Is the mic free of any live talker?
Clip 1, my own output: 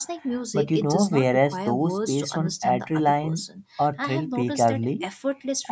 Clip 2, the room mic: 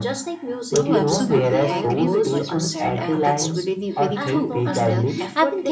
No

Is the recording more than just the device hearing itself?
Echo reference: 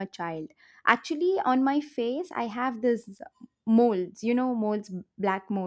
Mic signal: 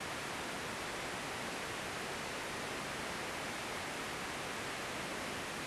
No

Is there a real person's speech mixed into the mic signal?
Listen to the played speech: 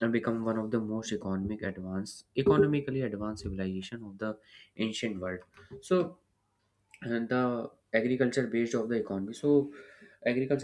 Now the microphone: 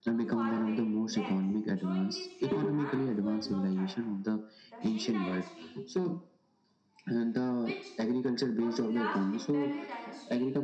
Yes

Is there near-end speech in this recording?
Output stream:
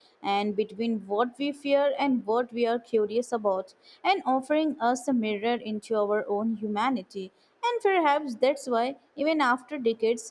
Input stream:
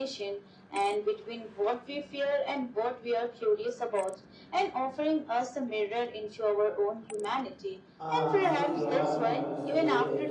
Yes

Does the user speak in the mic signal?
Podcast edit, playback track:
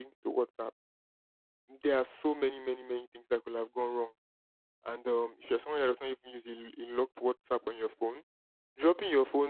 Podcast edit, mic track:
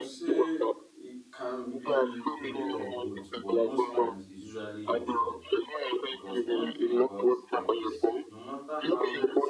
Yes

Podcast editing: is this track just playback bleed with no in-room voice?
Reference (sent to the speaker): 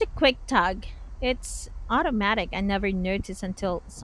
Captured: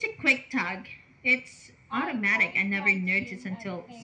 No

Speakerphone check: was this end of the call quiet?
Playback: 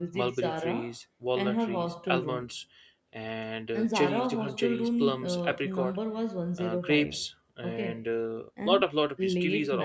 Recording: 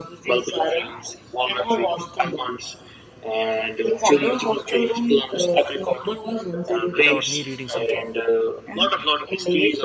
No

